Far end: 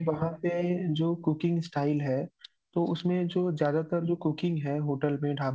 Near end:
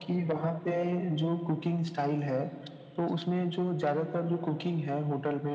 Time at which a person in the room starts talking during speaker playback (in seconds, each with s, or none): none